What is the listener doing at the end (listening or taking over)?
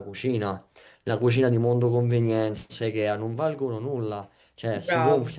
listening